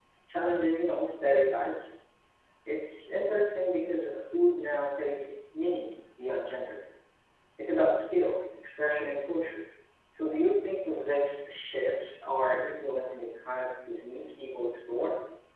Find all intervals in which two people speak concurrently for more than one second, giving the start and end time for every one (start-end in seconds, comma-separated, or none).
none